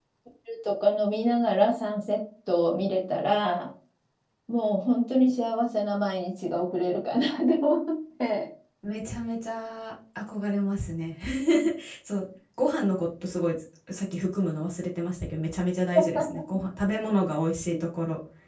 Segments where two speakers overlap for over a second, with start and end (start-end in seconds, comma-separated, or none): none